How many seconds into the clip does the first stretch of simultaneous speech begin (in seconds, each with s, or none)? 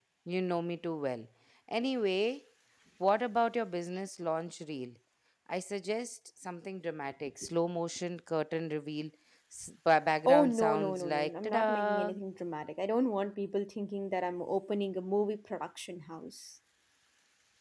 10.3 s